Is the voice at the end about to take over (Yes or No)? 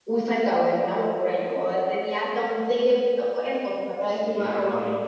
Yes